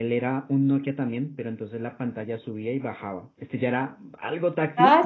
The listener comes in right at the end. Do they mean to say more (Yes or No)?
Yes